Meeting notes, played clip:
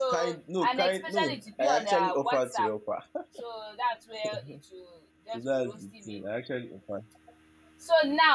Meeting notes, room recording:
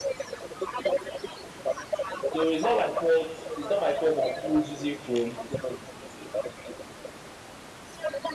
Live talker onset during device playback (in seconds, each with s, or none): 2.3 s